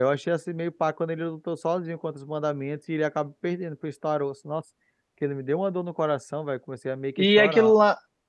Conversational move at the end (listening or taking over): taking over